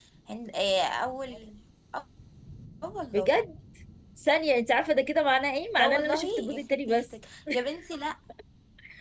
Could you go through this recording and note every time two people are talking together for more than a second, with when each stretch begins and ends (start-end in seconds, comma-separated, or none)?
5.8-7.0